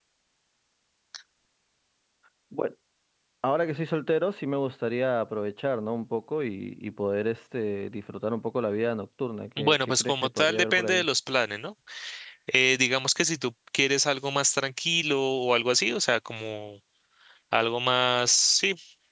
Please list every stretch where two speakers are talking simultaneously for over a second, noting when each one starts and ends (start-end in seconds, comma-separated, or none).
9.6-11.0